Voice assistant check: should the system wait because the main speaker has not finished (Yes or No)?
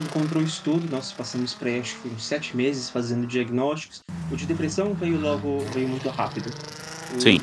Yes